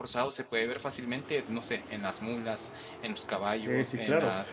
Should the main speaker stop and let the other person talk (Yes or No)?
Yes